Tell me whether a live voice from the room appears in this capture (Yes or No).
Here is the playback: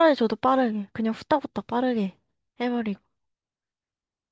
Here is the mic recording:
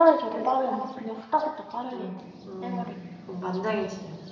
Yes